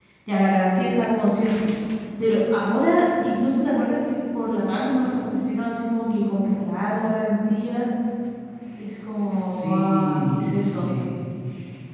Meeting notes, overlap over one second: present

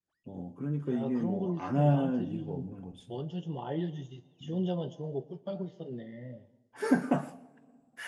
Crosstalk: present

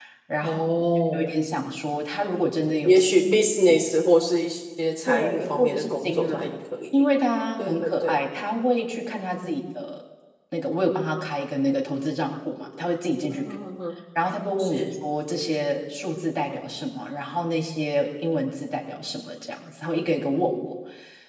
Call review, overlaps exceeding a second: present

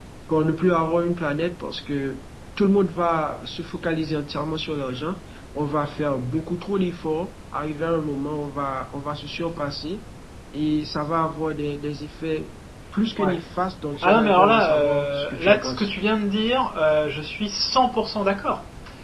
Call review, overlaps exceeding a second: present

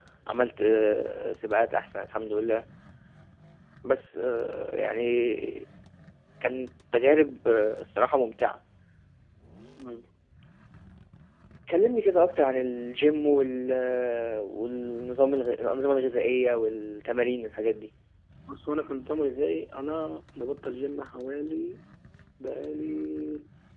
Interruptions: none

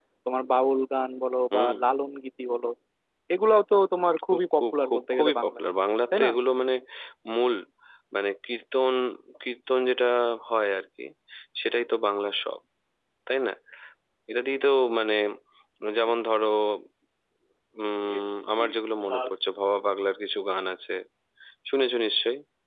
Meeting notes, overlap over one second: present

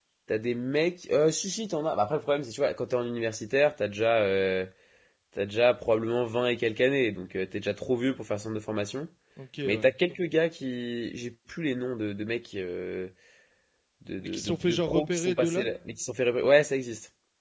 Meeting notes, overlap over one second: present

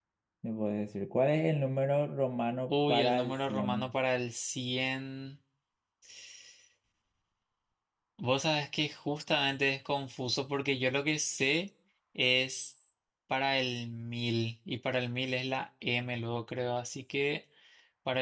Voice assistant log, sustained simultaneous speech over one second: present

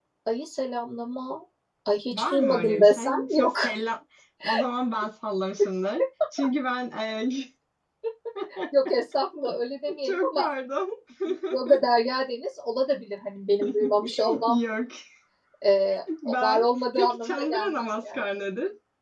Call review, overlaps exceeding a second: present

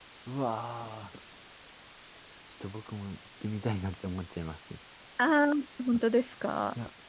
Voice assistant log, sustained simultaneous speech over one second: none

